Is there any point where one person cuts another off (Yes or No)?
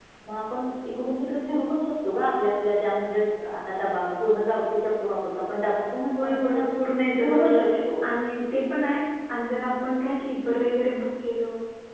Yes